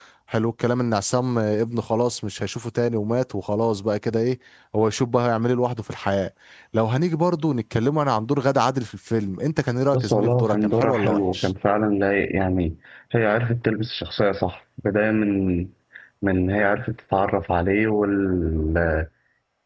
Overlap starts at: 9.9 s

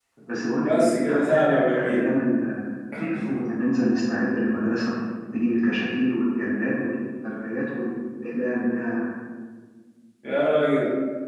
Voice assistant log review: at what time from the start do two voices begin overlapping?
0.7 s

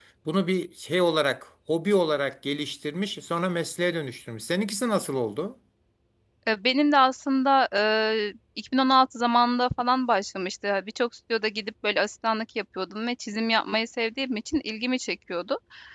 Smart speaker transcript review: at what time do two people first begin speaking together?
none

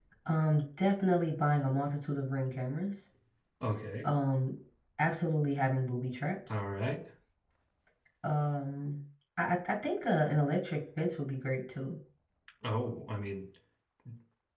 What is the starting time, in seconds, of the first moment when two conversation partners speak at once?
none

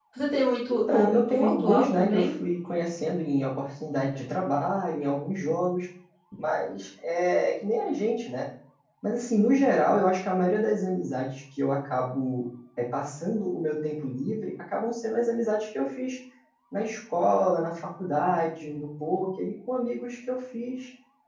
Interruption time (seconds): 0.7 s

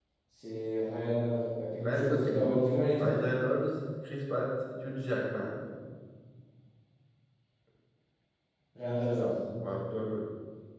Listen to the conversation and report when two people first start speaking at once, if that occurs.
1.8 s

